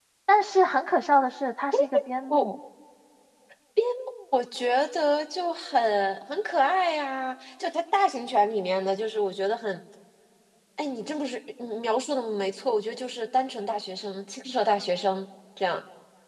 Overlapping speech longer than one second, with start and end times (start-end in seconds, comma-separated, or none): none